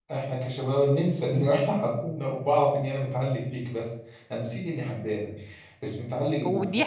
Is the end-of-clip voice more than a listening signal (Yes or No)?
Yes